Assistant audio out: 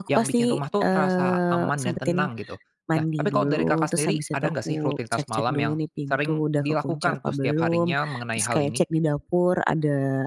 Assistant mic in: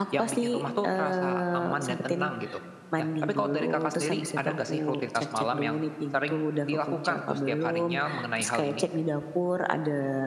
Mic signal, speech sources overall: echo only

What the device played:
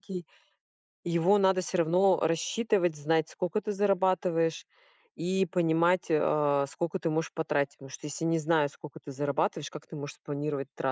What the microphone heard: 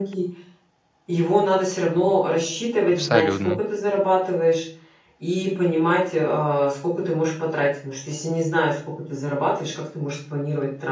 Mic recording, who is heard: both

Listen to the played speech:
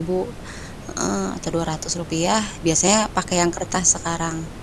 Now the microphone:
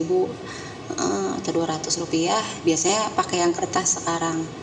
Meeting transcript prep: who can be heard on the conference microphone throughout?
echo only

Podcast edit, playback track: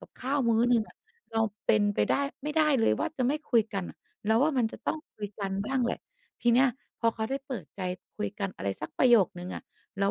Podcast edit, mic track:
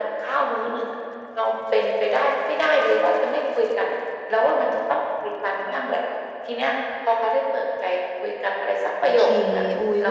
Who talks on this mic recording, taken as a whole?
both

